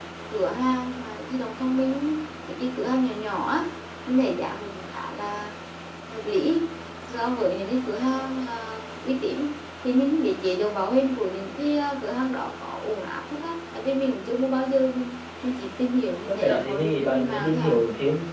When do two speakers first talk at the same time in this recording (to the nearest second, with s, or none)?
16 s